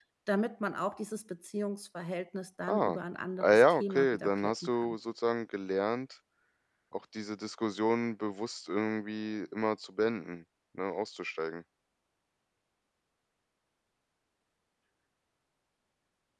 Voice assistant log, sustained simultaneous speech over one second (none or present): present